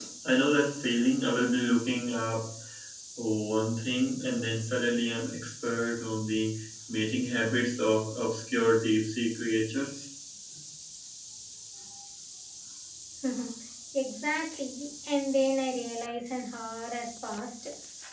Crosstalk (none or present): none